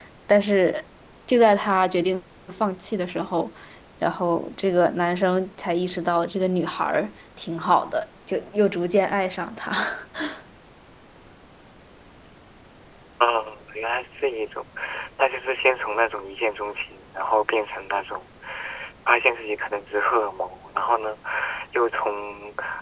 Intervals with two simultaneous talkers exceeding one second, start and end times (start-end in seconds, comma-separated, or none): none